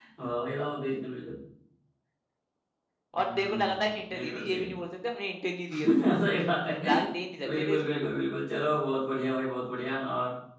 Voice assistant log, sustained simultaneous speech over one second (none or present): present